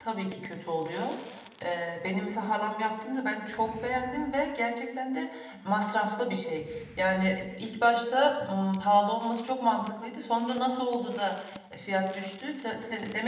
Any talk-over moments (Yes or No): No